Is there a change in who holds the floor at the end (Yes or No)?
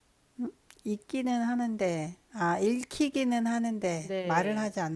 Yes